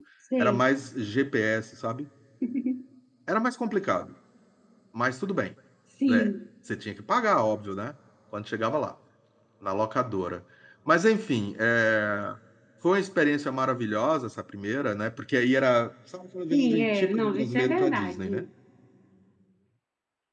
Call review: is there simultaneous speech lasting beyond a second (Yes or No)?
Yes